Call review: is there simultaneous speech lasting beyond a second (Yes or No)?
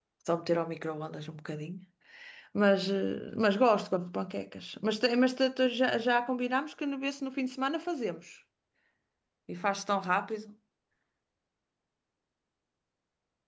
No